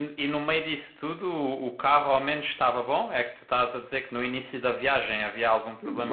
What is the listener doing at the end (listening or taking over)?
taking over